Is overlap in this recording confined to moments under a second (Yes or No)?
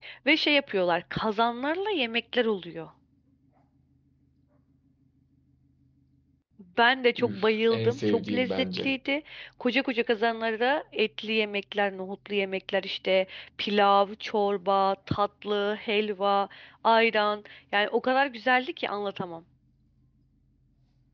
No